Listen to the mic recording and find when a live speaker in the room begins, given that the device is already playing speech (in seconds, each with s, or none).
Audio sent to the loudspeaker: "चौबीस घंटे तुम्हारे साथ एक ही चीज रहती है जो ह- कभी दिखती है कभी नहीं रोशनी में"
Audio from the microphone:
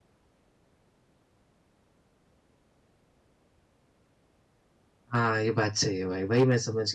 5.1 s